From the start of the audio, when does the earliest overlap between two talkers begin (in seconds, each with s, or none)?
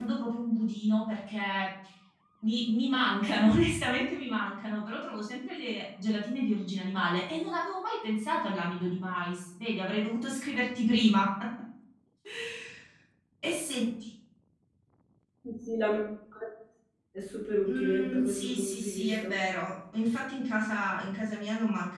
17.7 s